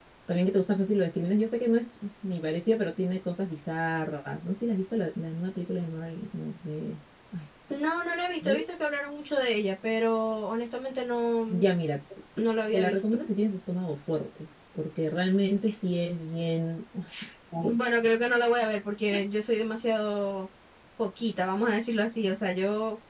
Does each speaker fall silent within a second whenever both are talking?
Yes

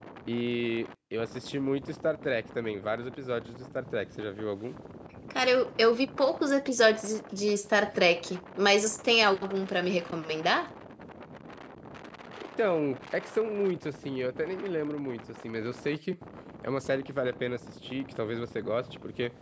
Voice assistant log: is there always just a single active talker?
Yes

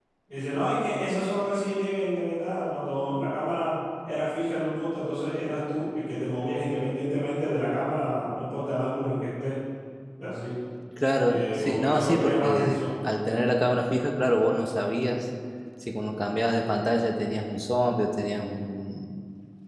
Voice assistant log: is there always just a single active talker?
No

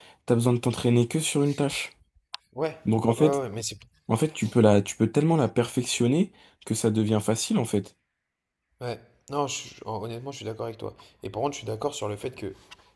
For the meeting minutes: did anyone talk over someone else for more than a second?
No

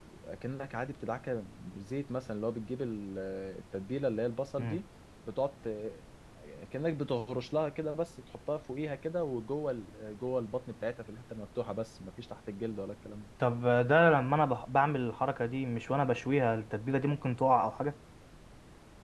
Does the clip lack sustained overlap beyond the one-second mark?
Yes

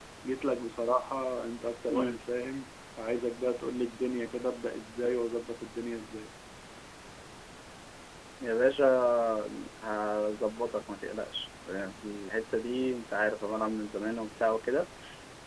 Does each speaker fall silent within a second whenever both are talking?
Yes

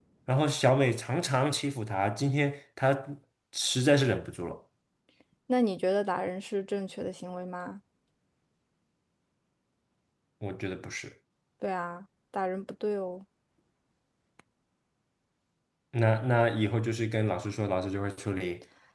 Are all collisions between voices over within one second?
Yes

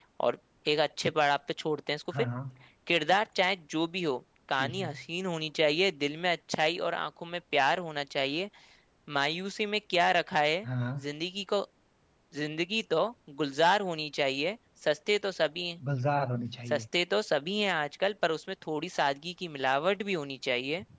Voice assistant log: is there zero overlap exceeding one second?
Yes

